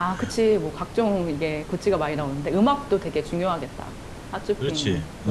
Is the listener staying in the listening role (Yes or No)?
No